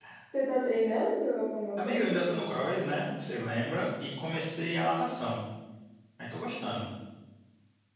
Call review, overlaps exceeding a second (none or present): present